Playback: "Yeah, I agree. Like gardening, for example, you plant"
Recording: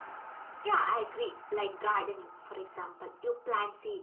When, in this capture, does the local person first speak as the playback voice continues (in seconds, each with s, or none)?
none